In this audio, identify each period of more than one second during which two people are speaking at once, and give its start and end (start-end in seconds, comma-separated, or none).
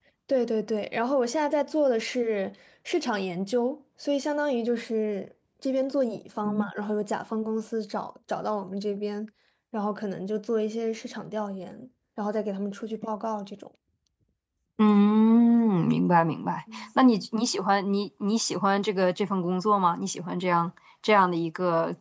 none